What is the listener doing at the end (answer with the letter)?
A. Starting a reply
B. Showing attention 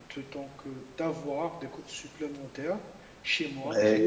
B